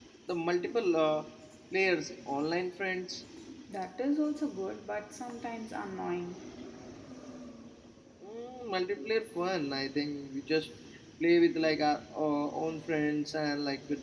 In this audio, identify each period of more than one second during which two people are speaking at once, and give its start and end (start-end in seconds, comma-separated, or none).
none